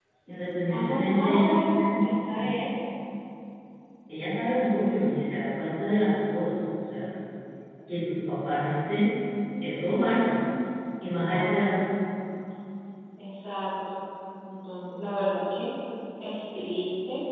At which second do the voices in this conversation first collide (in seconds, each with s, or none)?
0.8 s